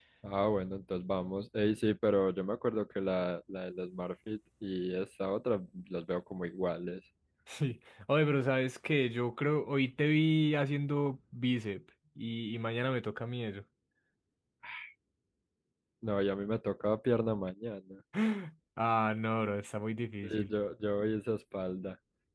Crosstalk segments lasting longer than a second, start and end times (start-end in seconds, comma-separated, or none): none